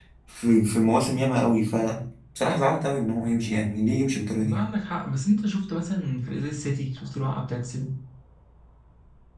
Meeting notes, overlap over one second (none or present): none